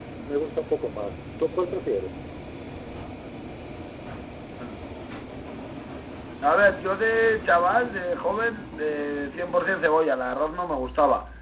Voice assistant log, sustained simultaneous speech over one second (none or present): none